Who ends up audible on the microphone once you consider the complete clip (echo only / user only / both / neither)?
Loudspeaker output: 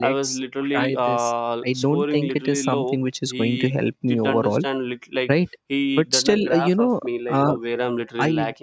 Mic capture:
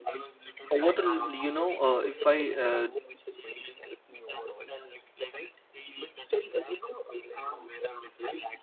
both